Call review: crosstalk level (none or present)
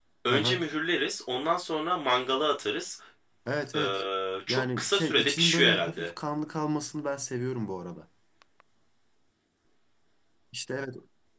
present